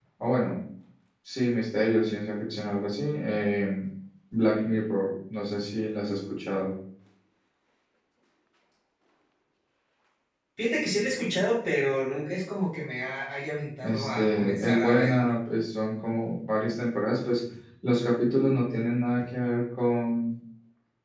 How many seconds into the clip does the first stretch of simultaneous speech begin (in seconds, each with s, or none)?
13.8 s